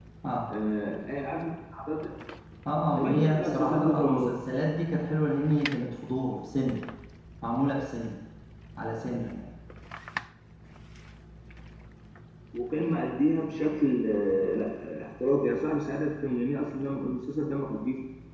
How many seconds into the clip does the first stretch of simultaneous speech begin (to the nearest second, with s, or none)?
3 s